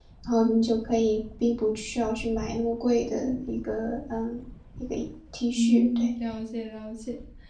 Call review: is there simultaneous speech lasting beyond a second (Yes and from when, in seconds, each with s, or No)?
No